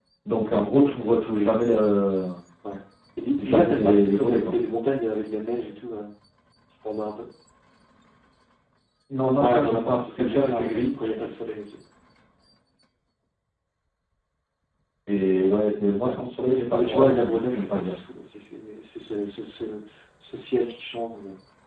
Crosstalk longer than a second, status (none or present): present